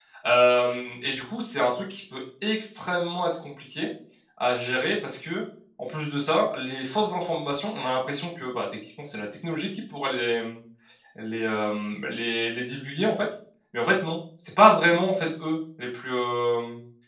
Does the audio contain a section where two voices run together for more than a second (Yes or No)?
No